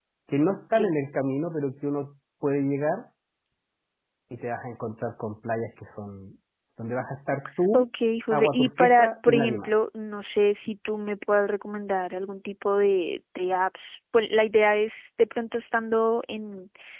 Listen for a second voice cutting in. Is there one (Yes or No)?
Yes